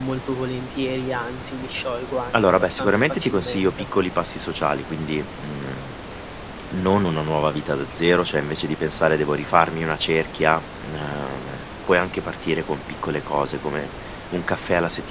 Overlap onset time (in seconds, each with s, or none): 2.3 s